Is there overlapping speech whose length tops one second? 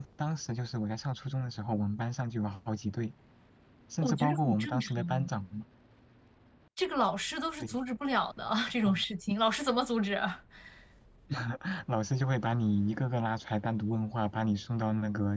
Yes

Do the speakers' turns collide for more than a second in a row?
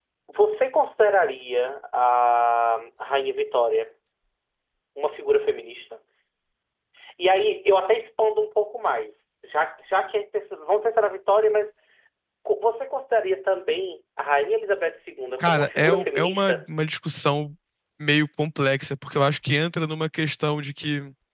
Yes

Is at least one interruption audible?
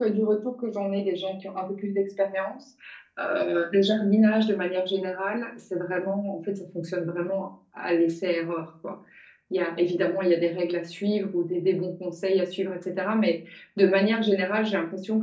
No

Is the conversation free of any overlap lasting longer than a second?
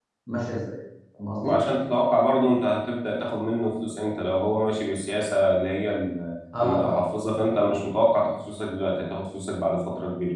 Yes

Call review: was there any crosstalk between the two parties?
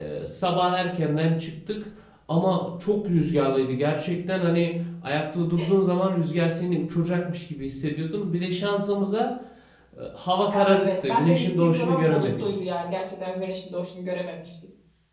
Yes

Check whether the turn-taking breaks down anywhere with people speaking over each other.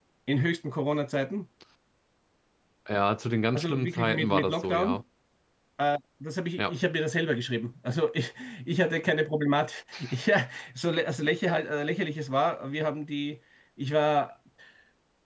Yes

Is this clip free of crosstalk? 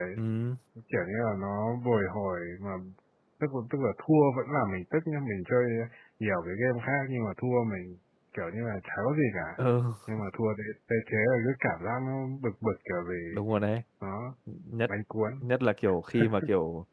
Yes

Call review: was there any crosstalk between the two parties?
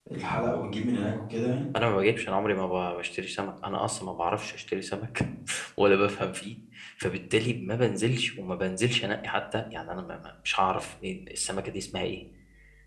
No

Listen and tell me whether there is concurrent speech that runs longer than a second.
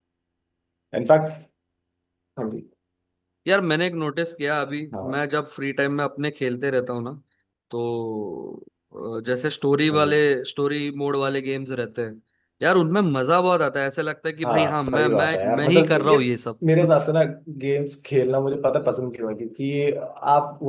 Yes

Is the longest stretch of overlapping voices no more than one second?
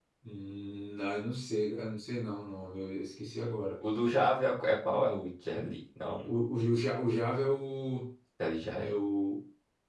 Yes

